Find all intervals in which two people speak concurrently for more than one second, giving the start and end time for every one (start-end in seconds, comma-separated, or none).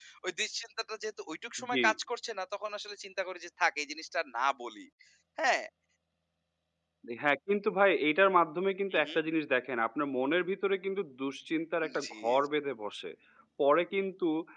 none